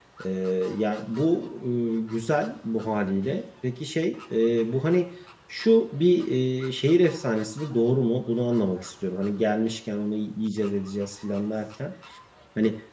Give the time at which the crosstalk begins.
none

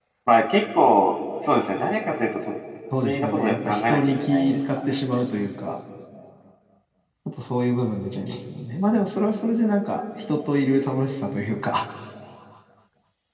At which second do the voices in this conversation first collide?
2.9 s

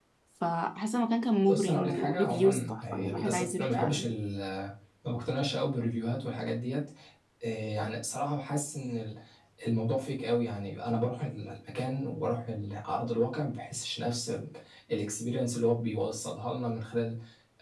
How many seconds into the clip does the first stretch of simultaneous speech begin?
1.5 s

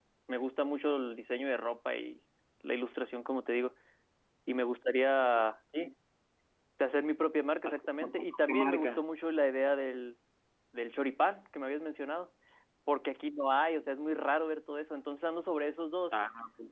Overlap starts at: 7.6 s

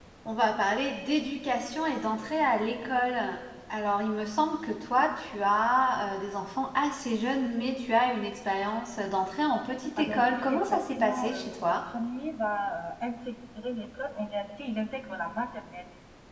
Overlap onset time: 10.0 s

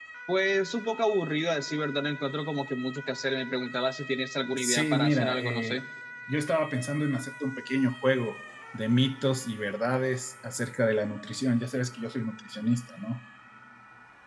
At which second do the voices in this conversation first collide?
4.5 s

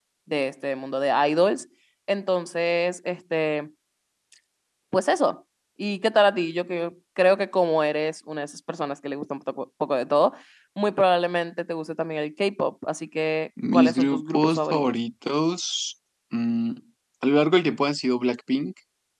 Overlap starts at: 13.6 s

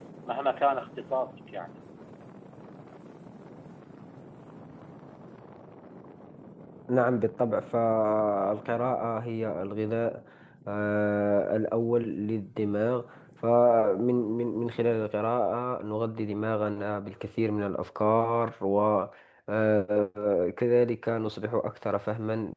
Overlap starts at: none

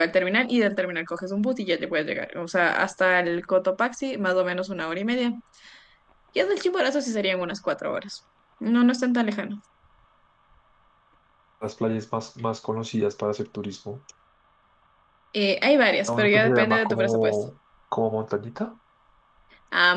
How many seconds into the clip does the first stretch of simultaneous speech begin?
16.1 s

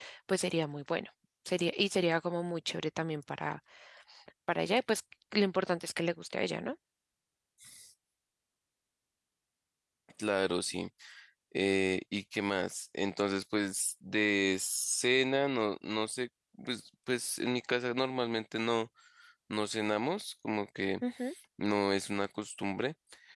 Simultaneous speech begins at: none

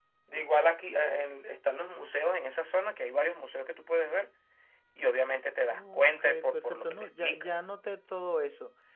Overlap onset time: 5.7 s

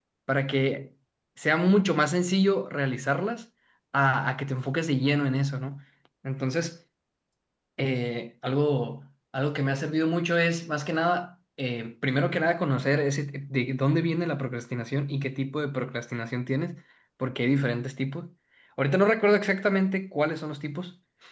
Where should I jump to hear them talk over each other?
none

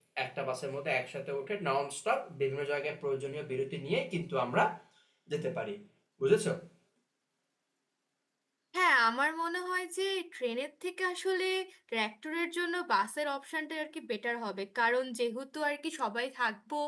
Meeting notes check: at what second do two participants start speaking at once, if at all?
none

